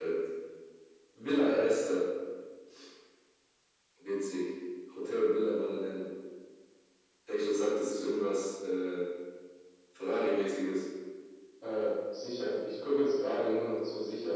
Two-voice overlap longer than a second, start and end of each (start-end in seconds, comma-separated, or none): none